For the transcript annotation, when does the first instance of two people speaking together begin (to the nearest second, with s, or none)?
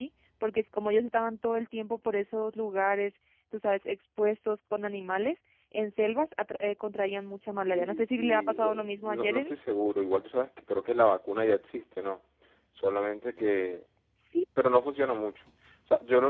8 s